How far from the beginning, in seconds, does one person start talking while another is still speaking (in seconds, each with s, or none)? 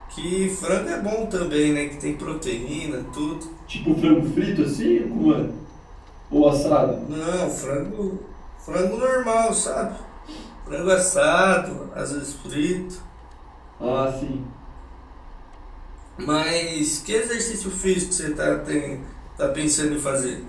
none